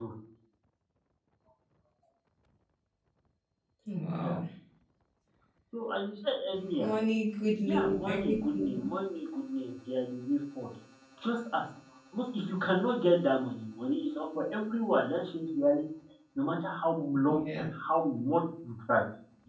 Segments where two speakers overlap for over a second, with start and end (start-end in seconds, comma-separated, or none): 7.6-8.9